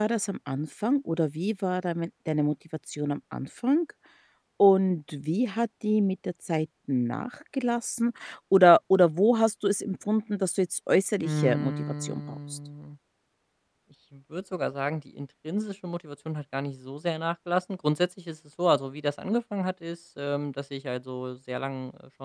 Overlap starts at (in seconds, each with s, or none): 11.2 s